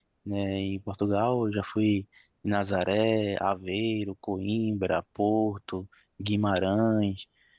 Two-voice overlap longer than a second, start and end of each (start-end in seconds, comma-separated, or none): none